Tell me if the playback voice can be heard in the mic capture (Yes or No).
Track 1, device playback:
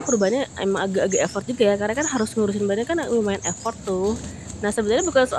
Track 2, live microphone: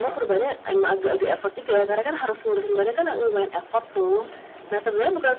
Yes